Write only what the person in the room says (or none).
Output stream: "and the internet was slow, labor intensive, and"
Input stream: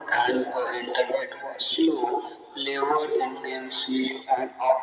none